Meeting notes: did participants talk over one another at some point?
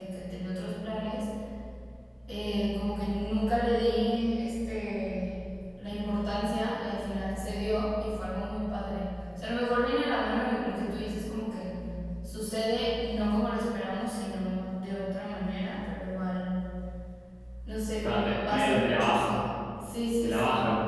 Yes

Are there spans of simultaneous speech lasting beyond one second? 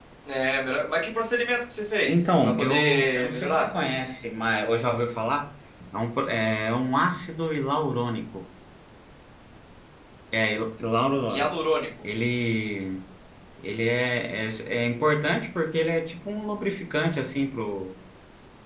Yes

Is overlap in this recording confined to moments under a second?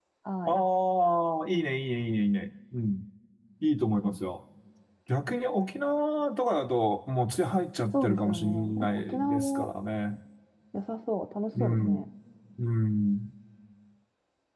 No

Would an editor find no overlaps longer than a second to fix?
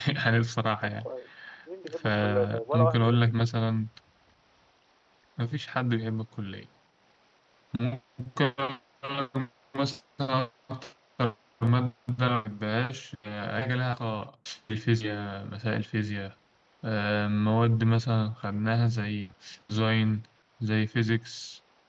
No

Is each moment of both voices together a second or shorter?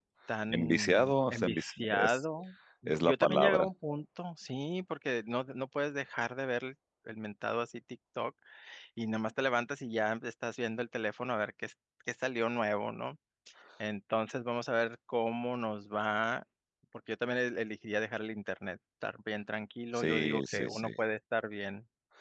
No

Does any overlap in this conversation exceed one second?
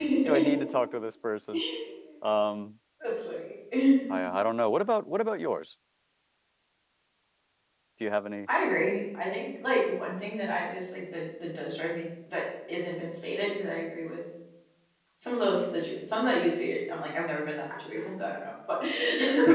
No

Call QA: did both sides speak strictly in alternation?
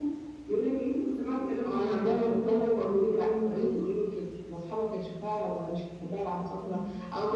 No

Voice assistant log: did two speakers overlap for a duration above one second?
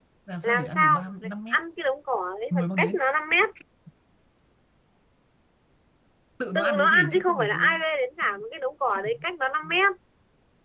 Yes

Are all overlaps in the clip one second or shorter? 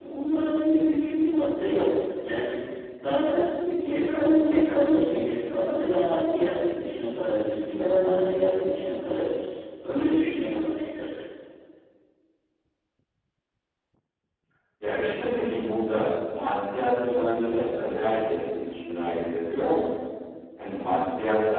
Yes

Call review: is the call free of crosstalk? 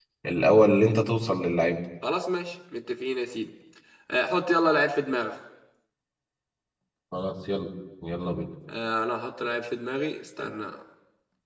Yes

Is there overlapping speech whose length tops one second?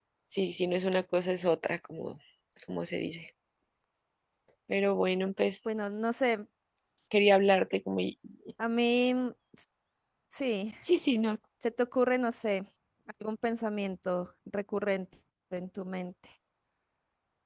No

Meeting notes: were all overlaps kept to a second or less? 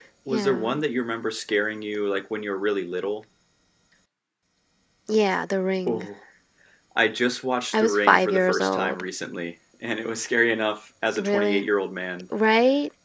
No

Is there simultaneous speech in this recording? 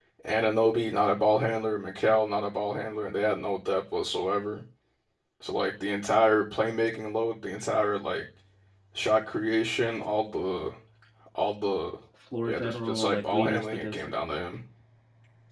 Yes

